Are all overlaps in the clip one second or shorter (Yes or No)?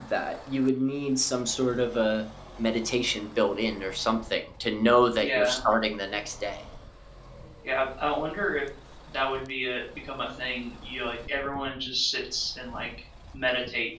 Yes